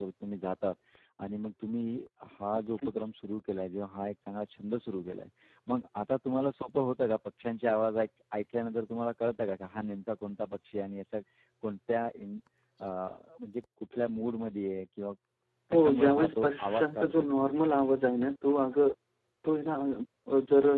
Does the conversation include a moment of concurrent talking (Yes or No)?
Yes